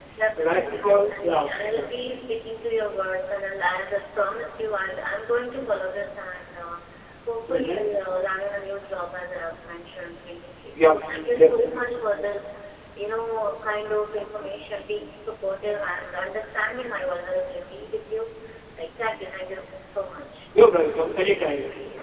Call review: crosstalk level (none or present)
present